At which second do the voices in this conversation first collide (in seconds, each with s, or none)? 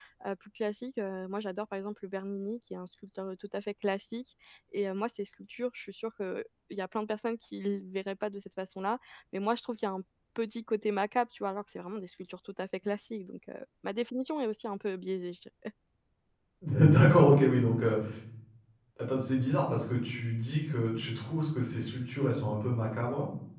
none